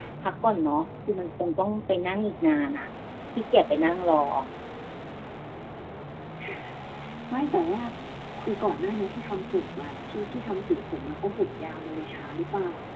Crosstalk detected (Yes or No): No